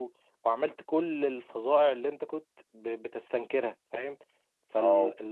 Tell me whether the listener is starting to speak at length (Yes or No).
Yes